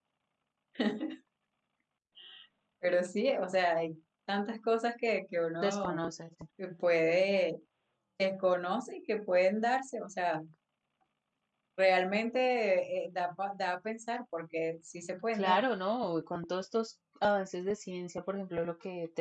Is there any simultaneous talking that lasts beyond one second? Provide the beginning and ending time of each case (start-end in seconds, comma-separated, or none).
none